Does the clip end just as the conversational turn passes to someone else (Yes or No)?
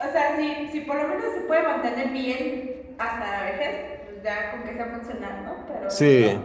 Yes